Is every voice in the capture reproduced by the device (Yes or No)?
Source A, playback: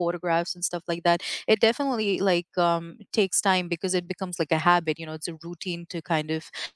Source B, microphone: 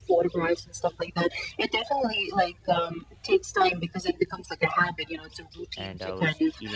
No